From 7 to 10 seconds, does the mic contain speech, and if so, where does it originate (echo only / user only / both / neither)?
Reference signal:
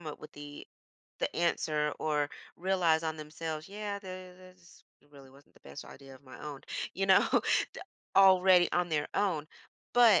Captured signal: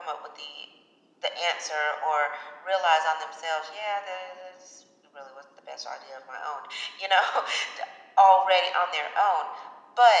echo only